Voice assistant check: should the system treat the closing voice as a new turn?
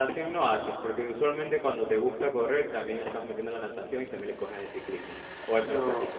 Yes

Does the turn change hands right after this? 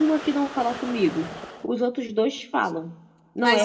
No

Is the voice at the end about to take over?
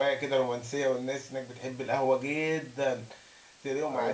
No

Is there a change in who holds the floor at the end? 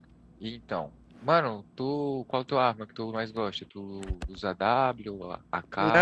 Yes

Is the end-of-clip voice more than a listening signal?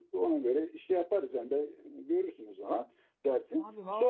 Yes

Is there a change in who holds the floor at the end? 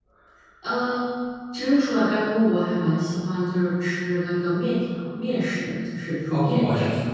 Yes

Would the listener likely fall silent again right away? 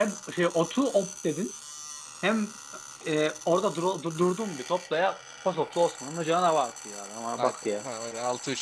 No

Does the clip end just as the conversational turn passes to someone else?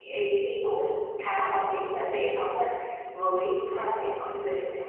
No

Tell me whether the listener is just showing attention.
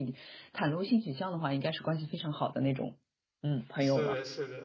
No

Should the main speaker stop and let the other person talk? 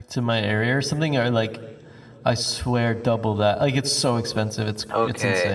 Yes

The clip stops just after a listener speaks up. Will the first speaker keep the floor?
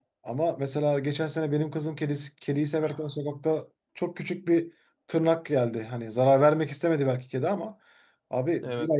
Yes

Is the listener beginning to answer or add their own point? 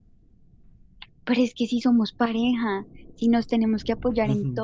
Yes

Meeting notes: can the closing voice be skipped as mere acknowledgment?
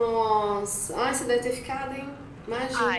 No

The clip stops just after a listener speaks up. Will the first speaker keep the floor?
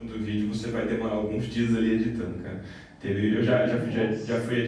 Yes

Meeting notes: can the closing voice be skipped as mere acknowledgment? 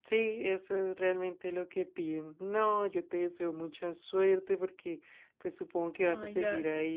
Yes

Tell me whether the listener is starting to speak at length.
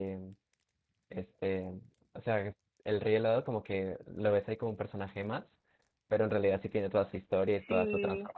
Yes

